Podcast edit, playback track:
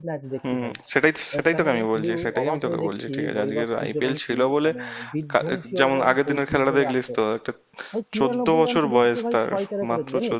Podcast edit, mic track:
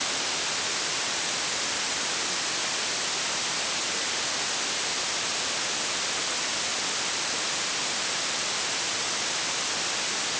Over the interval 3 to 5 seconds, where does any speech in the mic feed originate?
neither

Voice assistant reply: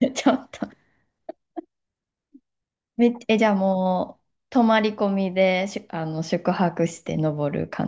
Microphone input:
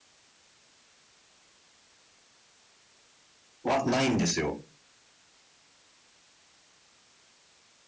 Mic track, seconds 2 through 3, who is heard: neither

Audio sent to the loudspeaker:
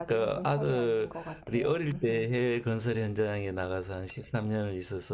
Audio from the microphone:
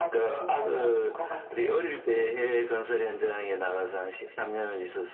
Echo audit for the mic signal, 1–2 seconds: echo only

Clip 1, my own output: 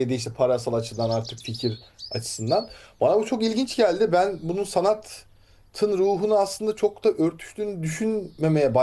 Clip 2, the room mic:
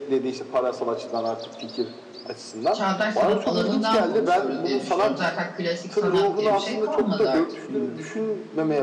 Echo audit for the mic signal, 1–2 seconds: echo only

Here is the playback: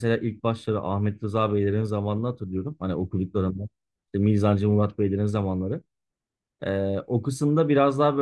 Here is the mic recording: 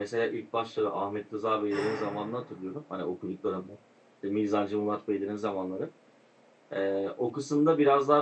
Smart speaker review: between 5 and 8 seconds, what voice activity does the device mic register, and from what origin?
echo only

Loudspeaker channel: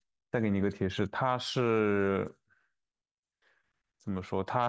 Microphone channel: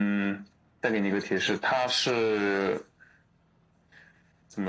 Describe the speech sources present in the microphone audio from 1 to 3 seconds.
echo only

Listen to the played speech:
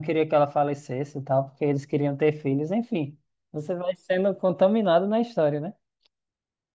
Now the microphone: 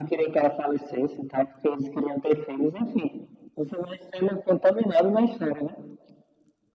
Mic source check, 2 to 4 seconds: echo only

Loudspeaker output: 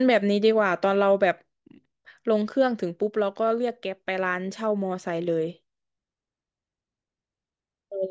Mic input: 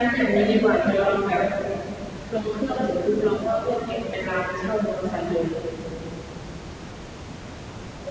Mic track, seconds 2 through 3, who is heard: echo only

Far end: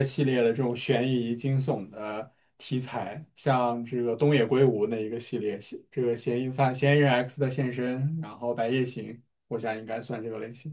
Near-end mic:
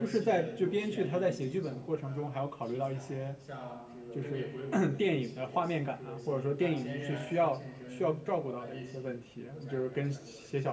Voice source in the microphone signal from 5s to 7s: both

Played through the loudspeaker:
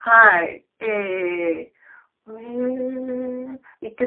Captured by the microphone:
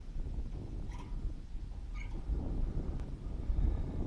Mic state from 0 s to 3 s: neither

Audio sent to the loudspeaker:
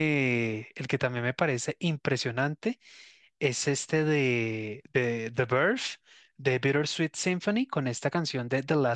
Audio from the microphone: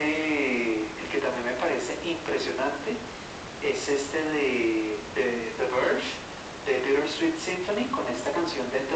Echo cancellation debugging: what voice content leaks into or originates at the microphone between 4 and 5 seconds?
echo only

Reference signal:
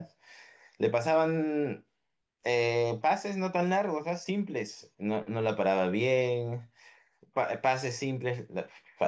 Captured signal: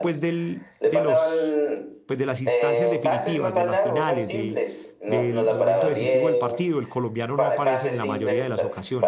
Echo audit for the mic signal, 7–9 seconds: both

